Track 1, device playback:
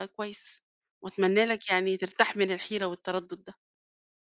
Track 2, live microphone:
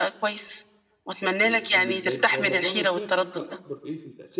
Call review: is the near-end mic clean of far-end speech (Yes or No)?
No